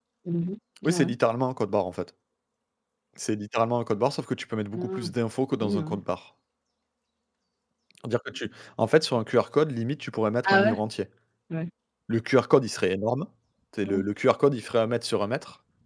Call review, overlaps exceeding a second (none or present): none